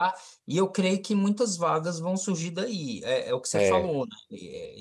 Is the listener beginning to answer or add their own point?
No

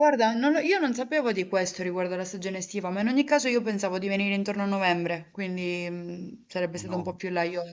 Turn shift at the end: No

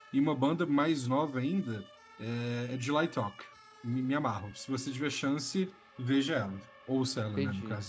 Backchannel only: No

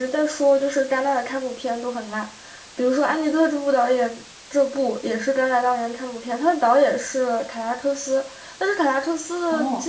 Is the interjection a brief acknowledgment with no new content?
No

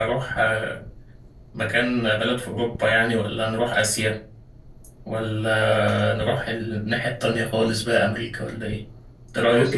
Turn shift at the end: Yes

